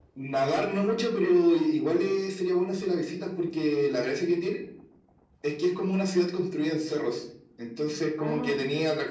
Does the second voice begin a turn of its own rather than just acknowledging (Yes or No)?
No